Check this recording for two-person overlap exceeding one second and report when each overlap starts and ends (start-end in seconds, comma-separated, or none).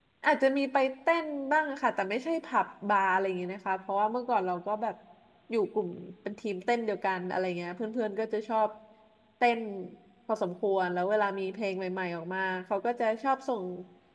none